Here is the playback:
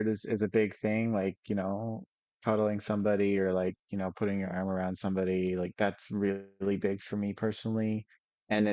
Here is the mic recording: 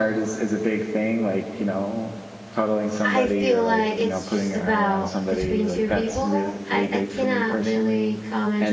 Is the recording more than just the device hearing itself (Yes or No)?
Yes